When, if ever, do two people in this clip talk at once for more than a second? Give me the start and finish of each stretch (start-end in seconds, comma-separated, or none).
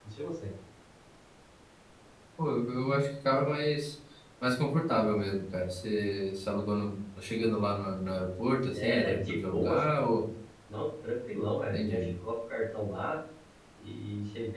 8.7-10.1